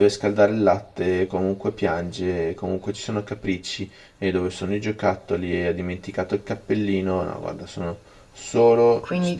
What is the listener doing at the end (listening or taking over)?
taking over